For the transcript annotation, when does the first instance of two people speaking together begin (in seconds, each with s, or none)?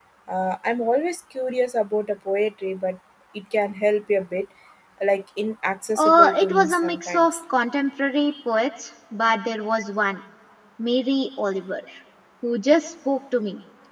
6.0 s